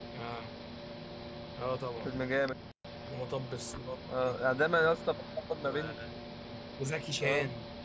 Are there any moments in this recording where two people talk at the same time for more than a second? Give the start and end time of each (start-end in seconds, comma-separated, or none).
none